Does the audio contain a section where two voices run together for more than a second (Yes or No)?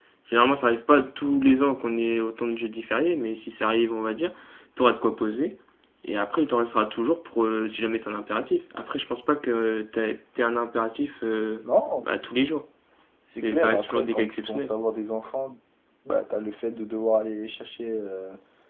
Yes